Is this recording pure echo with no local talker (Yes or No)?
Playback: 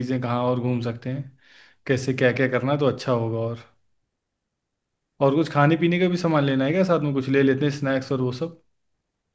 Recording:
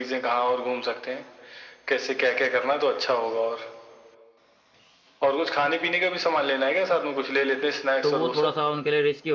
No